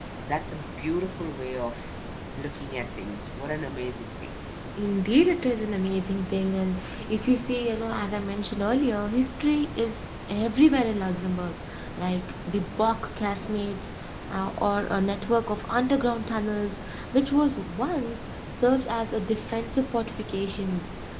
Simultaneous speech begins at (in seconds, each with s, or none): none